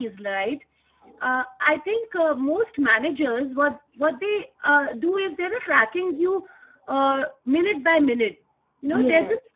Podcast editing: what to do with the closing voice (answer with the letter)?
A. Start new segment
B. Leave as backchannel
B